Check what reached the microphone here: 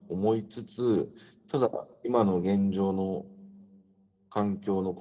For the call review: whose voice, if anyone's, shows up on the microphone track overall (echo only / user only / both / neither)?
echo only